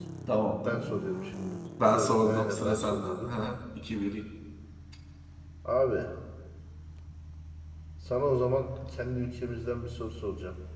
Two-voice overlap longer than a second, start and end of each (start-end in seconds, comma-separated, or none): 1.9-3.3